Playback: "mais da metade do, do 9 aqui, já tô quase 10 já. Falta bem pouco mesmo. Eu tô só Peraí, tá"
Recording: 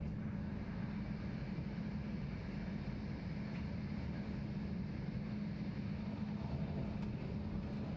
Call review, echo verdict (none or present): none